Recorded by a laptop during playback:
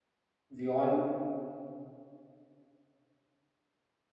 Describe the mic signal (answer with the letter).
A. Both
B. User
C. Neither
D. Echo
B